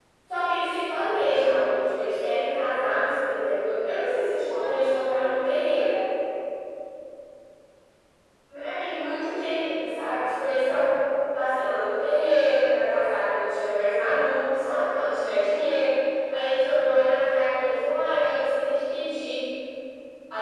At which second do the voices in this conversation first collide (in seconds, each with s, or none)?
4.5 s